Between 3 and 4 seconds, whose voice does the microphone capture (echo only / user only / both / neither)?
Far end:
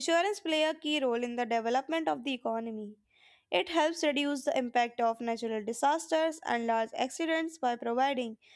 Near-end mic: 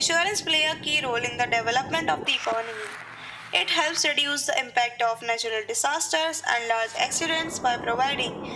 echo only